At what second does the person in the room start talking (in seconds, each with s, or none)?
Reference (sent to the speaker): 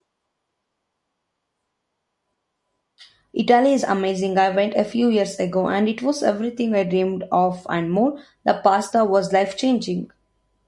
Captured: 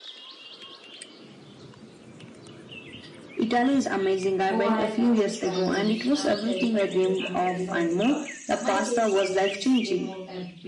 4.5 s